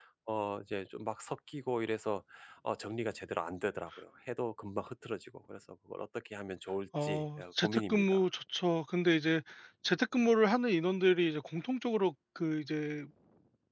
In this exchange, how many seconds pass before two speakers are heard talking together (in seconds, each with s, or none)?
6.9 s